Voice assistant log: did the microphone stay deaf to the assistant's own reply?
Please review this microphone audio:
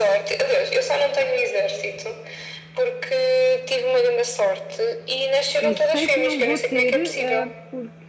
No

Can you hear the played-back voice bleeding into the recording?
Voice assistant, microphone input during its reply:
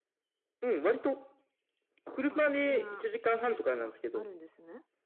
Yes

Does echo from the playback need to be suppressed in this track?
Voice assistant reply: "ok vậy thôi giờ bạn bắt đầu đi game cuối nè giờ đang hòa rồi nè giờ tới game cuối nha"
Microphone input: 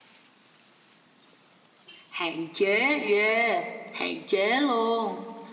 No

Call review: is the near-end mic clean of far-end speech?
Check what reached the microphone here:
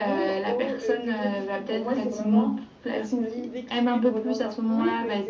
No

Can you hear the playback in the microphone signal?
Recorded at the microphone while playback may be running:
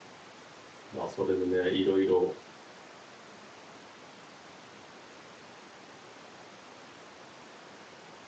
No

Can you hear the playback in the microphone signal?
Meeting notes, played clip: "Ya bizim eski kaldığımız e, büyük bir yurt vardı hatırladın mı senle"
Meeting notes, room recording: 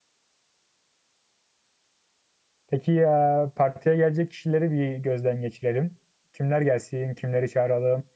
No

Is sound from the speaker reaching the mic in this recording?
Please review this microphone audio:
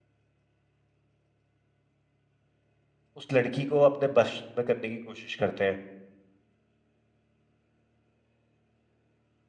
No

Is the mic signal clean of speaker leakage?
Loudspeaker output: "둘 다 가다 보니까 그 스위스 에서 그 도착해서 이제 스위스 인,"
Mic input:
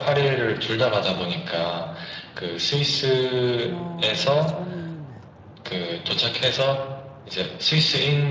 No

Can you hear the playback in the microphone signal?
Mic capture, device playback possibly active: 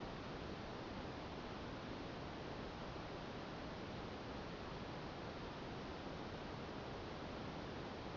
No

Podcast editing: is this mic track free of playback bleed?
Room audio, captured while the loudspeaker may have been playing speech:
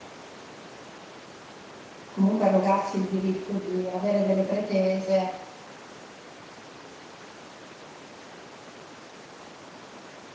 Yes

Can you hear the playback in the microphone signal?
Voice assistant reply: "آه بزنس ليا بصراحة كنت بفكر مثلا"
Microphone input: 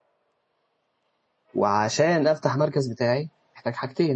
No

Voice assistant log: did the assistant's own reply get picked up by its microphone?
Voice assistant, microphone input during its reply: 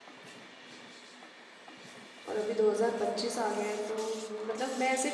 No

